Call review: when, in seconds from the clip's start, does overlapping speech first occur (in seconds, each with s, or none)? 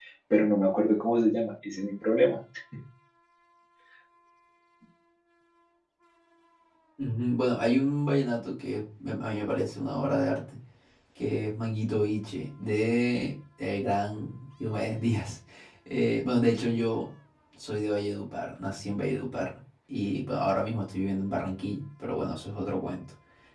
none